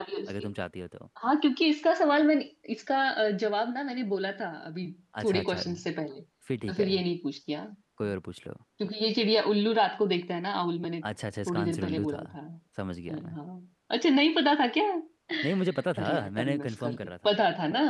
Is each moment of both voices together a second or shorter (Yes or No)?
No